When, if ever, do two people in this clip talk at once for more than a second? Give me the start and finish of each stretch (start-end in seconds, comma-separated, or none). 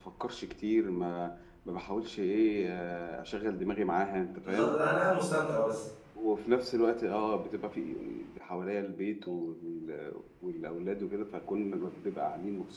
none